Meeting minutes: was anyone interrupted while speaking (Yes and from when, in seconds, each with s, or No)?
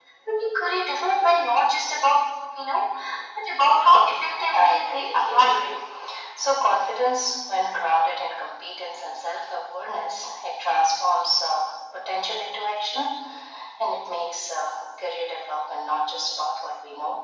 Yes, from 4.5 s